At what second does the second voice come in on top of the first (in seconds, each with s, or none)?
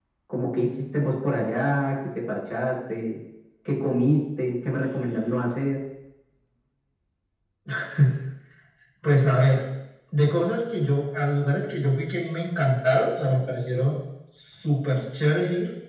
none